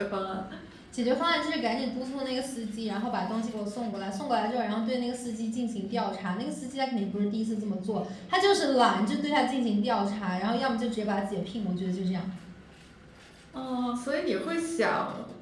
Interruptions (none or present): none